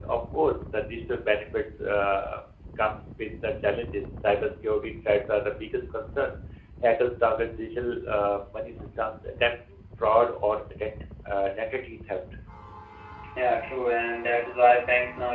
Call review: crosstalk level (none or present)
none